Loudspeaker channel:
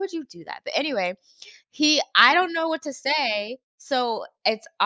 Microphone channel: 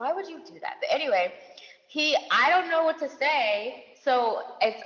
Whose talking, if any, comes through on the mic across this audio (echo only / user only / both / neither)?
echo only